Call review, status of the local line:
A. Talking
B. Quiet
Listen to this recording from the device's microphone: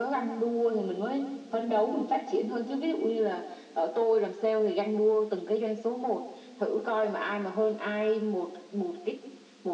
B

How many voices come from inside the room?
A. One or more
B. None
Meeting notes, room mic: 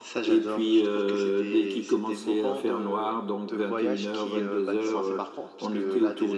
B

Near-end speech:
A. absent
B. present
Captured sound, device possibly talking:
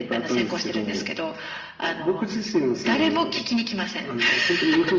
A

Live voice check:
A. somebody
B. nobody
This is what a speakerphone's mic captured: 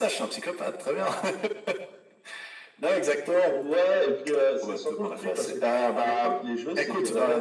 B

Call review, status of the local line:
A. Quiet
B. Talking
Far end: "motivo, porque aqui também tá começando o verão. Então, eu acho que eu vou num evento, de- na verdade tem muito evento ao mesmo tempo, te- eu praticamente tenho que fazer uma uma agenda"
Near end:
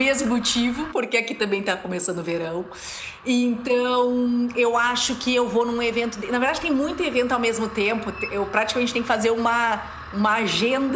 A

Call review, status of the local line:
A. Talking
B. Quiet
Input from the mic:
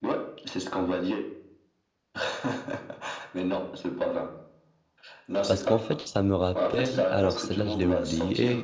A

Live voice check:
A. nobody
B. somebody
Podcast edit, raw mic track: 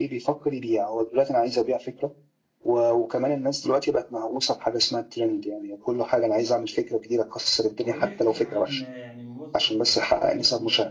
B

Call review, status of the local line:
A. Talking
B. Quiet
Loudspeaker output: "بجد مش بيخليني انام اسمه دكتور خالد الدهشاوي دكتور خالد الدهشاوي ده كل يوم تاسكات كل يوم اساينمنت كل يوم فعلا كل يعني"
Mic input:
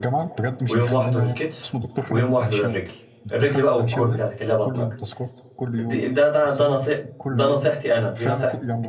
A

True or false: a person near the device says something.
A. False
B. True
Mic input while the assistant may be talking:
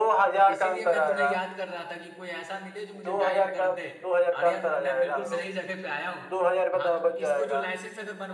B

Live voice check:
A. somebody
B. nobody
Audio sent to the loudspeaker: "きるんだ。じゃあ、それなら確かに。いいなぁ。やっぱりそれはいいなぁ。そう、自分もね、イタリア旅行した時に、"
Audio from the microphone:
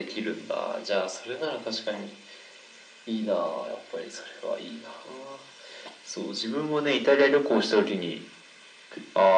B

